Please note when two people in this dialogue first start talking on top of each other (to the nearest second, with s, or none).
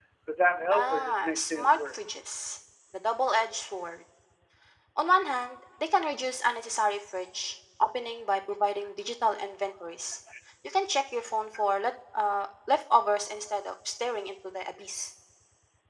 1 s